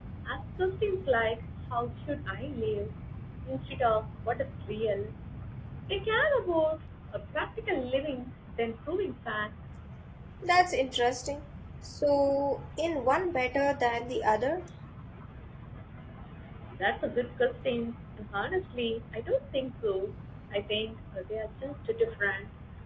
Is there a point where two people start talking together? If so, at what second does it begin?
none

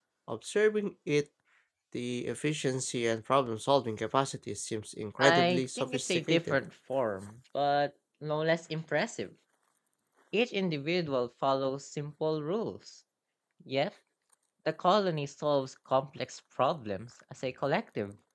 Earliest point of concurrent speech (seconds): 5 s

